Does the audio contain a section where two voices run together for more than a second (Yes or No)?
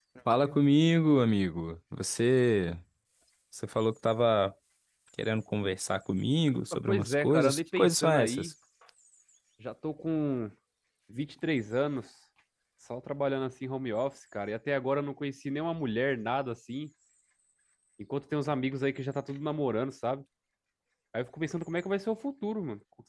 Yes